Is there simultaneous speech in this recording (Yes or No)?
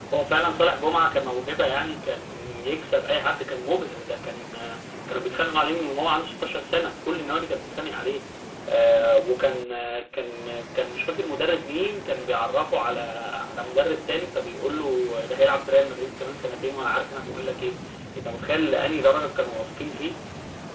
No